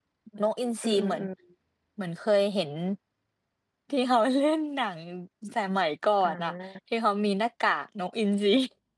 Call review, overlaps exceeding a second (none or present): none